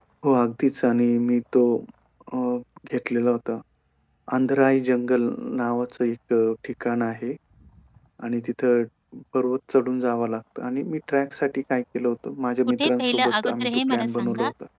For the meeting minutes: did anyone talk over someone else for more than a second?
Yes, from 12.8 s

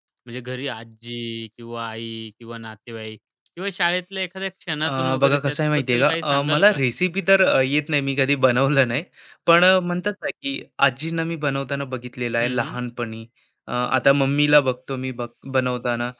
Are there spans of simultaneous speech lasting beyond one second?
Yes, from 4.9 s

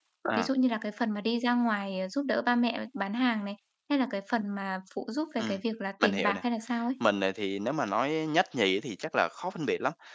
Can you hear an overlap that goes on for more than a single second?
No

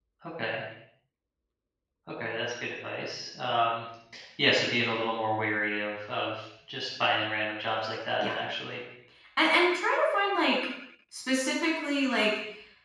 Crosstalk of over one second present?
No

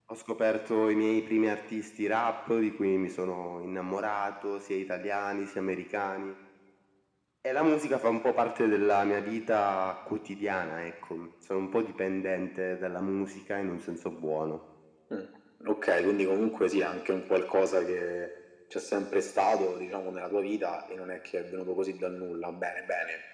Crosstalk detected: No

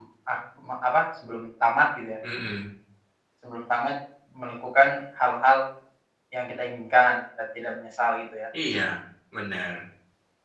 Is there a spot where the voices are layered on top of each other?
No

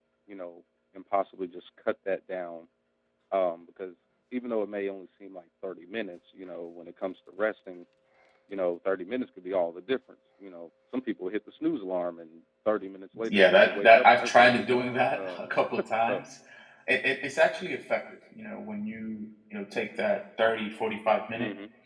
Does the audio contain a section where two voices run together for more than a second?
Yes, from 13.2 s

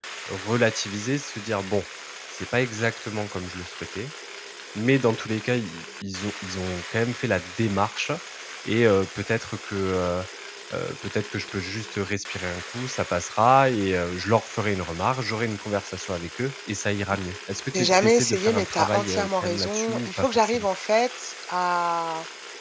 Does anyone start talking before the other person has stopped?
Yes, from 17.7 s

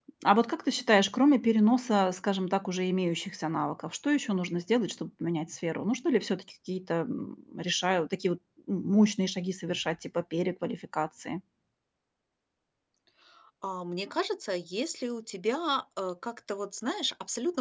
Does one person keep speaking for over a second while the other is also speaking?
No

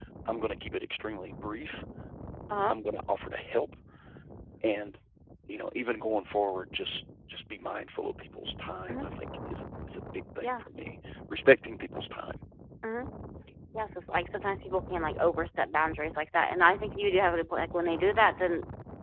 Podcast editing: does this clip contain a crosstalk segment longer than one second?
No

